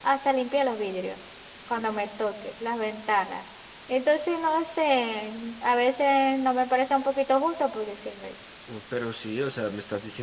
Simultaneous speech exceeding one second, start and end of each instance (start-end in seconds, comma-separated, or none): none